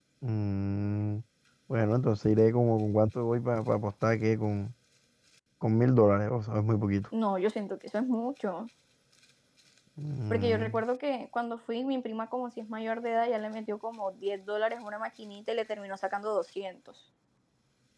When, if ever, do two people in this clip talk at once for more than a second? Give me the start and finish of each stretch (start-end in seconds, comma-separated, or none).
none